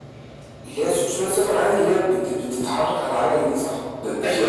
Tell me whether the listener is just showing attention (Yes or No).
No